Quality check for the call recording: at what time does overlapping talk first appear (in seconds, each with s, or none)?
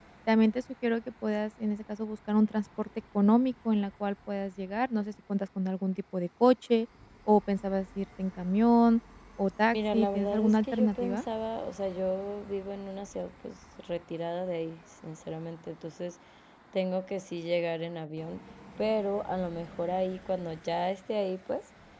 9.7 s